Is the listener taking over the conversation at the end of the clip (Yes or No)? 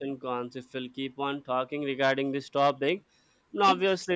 No